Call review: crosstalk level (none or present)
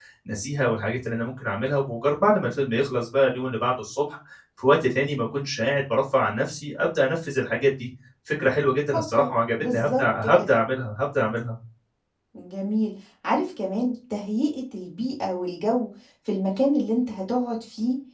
present